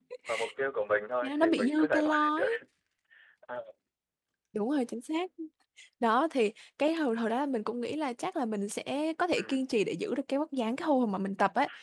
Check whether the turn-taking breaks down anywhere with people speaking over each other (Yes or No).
Yes